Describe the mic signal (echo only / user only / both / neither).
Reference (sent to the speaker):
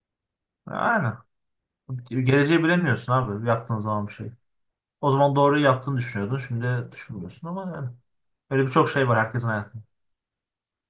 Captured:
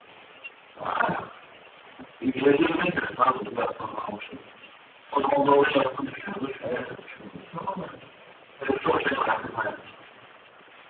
both